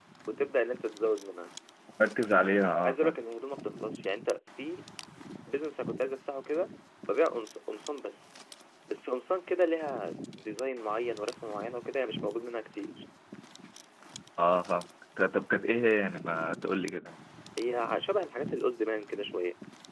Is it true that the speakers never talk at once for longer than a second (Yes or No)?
Yes